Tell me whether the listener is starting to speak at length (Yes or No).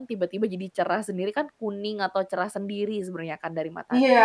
Yes